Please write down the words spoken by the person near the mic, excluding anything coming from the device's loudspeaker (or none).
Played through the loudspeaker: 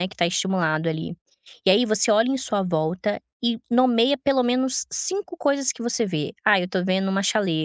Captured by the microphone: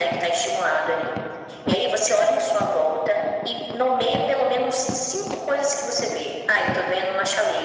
none